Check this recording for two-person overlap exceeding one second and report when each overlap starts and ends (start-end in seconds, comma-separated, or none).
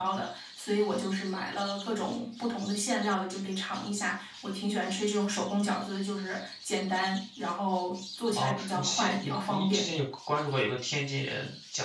8.4-9.9